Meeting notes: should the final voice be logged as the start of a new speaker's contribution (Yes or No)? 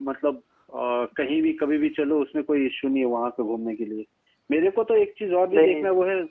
No